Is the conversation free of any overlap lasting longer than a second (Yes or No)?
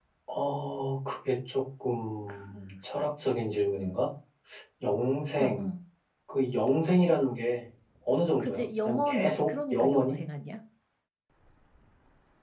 No